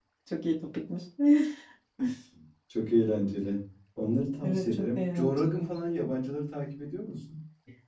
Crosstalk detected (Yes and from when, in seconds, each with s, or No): Yes, from 4.4 s